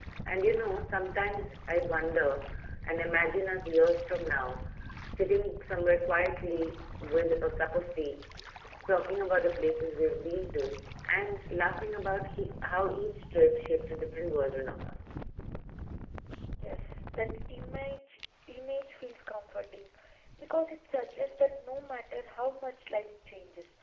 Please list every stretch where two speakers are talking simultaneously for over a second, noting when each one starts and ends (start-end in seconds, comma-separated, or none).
none